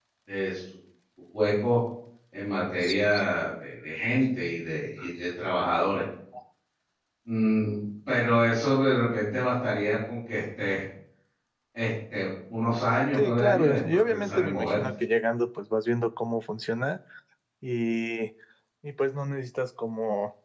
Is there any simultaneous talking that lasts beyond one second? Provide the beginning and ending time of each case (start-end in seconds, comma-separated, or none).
13.1-14.8